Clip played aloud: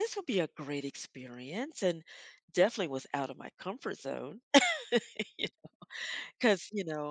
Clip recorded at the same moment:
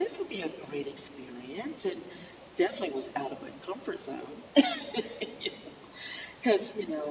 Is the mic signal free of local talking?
Yes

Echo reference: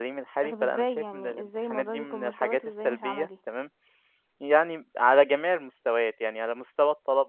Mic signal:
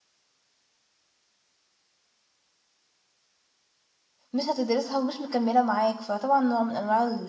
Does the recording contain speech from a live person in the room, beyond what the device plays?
Yes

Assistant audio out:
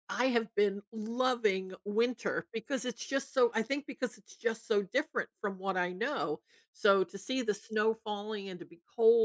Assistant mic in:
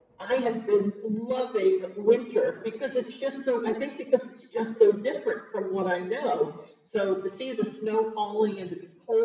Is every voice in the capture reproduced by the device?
Yes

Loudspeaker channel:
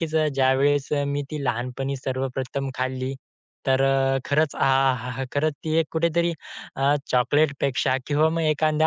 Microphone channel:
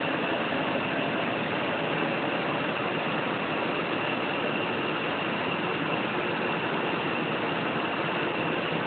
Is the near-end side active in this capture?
No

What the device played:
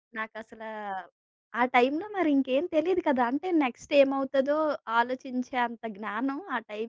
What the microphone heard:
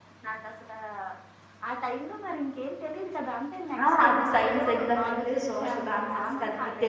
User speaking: Yes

